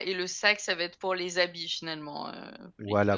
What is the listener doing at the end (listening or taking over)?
taking over